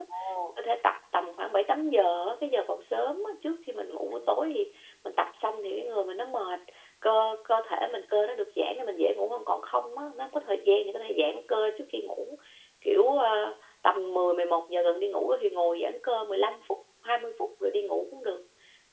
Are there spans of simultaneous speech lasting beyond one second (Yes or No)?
No